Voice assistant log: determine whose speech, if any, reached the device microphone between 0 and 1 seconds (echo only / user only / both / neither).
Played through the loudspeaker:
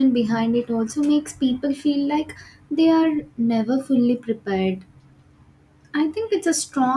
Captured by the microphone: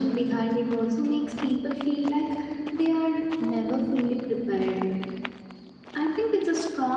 echo only